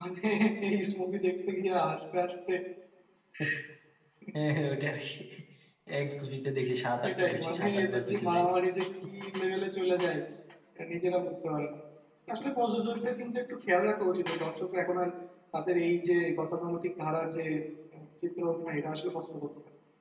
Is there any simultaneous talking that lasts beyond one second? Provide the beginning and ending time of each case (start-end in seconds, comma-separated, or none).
7.0-8.4